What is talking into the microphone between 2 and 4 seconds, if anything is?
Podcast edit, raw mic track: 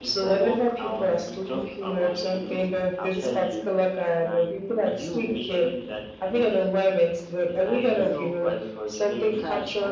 both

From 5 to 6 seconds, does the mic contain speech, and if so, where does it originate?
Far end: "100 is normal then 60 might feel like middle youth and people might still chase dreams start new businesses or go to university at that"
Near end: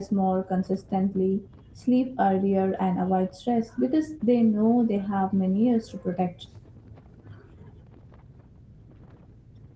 user only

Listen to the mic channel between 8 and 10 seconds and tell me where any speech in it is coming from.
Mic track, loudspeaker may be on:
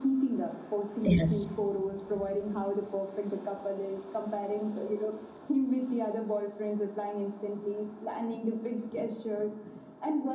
echo only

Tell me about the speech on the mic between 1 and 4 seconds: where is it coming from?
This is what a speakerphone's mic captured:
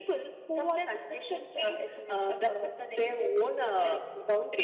echo only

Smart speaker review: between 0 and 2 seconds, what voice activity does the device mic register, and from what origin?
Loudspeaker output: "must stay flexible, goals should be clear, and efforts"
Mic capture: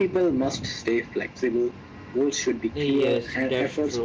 echo only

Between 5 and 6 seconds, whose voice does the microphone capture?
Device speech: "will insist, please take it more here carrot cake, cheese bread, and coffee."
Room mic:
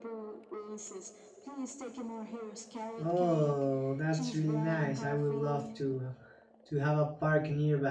both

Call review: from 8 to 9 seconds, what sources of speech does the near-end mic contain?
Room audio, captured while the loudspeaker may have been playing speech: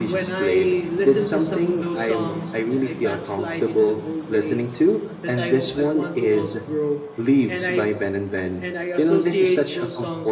echo only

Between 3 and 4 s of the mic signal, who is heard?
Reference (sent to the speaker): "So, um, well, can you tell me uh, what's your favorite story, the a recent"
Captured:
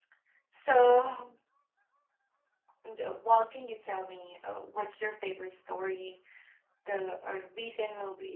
echo only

